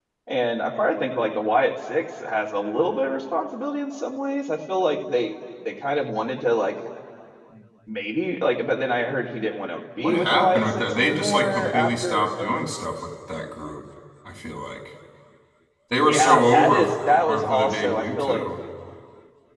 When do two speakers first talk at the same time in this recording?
10.0 s

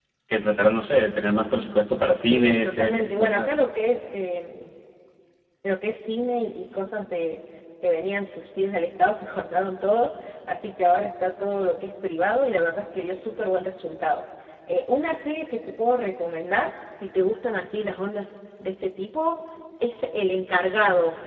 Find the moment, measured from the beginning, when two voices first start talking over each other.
2.2 s

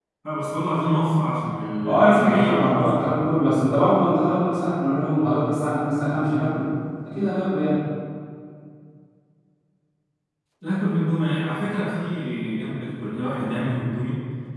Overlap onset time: 1.8 s

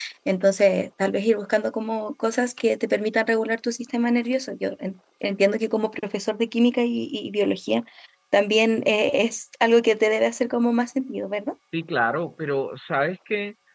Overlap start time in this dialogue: none

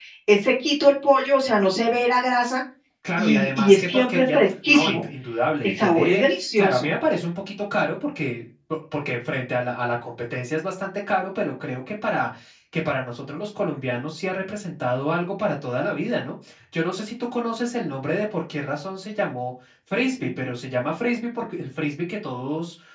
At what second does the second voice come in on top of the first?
3.2 s

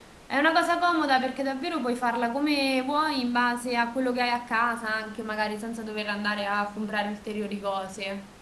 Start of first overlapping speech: none

